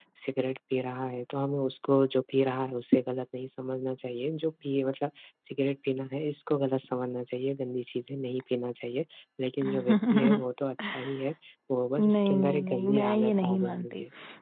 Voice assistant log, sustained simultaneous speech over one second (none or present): present